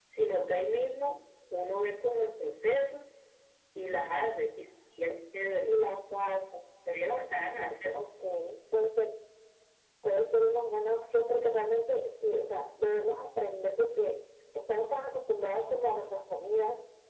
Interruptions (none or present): none